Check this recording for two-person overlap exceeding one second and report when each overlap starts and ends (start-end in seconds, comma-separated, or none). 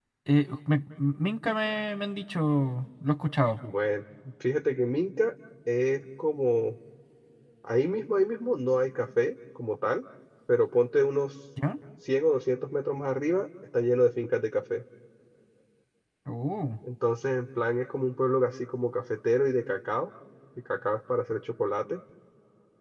none